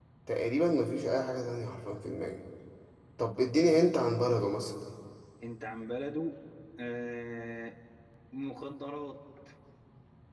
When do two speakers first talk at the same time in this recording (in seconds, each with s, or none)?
none